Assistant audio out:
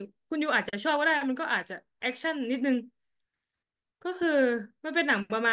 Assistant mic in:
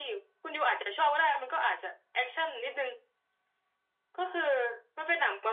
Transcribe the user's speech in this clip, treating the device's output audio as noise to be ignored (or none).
none